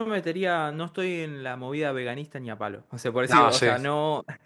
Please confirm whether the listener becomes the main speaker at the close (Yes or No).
No